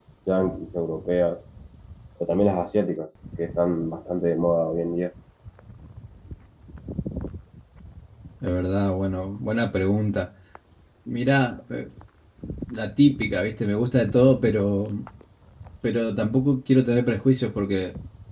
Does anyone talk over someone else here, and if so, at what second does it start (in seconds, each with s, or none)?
none